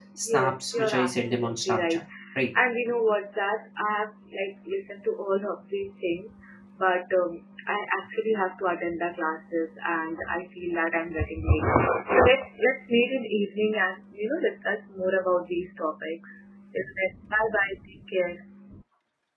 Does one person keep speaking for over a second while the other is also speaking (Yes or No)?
Yes